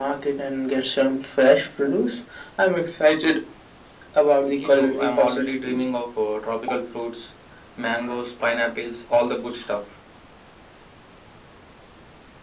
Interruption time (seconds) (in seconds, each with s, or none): 4.5 s